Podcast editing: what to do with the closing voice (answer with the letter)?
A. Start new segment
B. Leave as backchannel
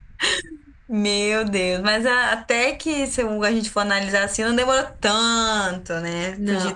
A